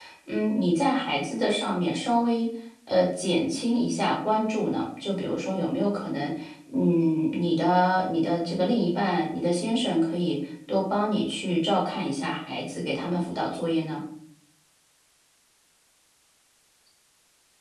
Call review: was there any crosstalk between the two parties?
No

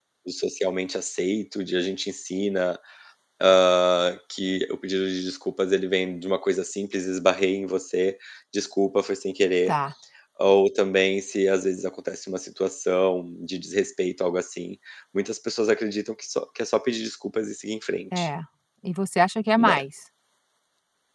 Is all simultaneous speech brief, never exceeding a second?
Yes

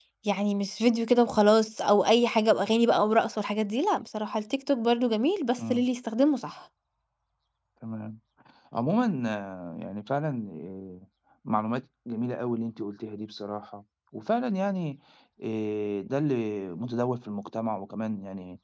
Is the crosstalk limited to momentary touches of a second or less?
Yes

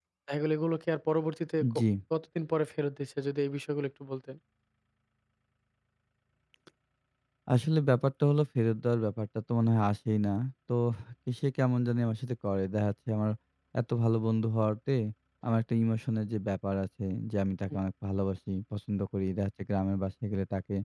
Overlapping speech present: No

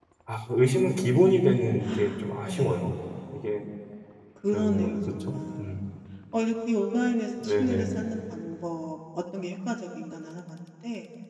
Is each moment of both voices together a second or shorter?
No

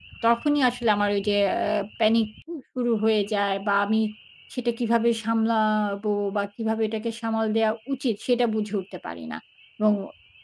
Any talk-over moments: No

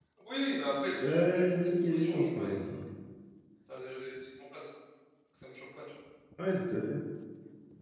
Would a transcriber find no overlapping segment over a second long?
No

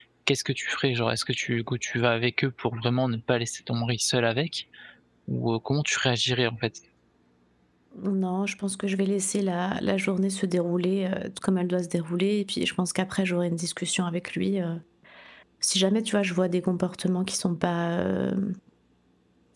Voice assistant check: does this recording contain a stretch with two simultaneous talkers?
No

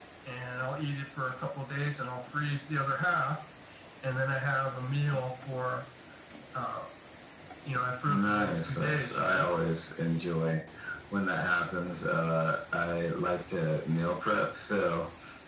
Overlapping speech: Yes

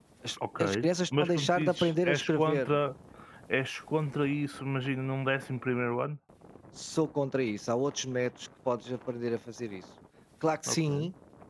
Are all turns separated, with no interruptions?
No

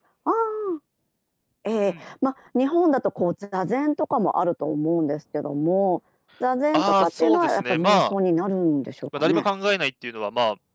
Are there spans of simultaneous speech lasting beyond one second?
Yes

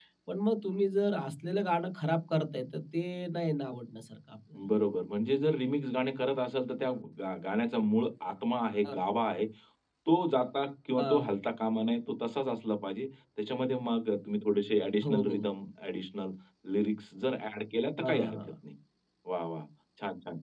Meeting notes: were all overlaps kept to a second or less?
Yes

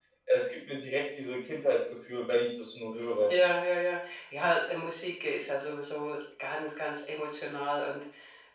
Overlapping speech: No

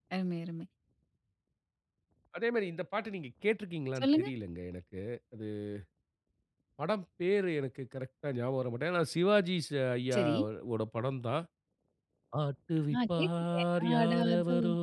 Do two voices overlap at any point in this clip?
Yes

